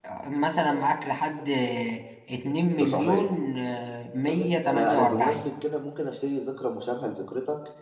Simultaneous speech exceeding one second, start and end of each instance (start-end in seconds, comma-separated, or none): 4.2-5.5